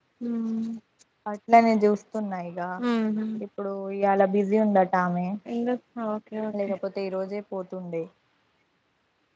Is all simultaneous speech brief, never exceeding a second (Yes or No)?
Yes